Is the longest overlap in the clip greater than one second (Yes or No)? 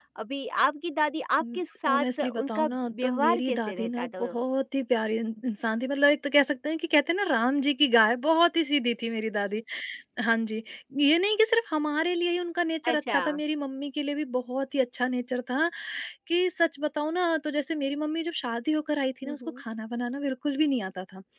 Yes